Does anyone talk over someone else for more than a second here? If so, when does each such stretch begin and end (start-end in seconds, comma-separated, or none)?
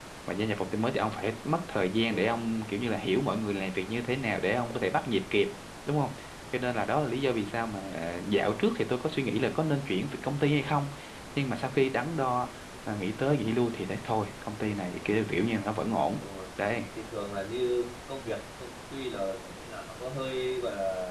none